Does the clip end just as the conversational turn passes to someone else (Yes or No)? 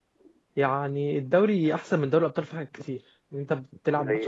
No